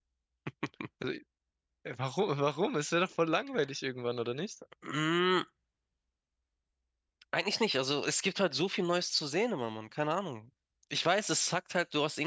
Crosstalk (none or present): none